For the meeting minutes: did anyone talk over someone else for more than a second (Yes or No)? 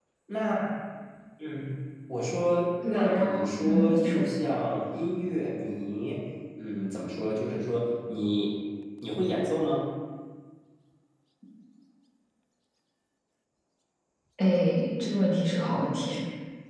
Yes